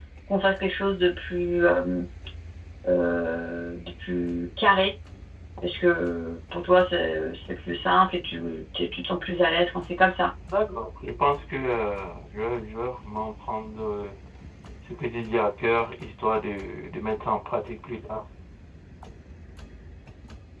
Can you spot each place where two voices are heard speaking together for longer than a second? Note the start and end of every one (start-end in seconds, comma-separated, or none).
none